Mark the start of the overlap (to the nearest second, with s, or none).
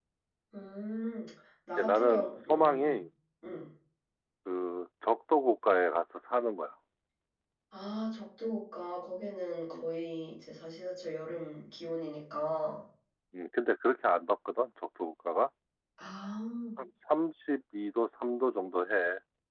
2 s